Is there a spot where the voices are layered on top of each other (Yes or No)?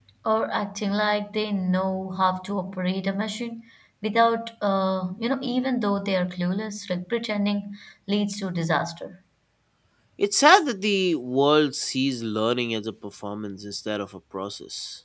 No